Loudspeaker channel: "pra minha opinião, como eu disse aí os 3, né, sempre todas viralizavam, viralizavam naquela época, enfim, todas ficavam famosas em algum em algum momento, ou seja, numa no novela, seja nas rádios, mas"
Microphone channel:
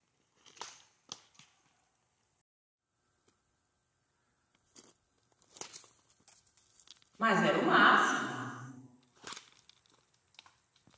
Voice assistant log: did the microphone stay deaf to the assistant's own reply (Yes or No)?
Yes